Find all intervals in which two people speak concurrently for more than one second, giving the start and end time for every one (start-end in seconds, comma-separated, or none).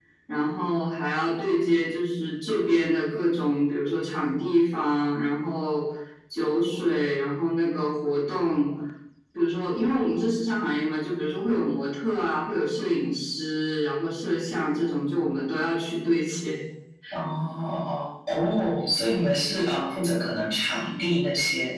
none